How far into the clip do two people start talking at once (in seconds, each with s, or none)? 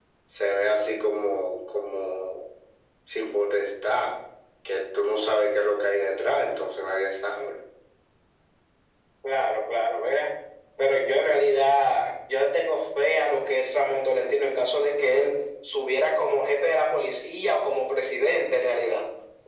none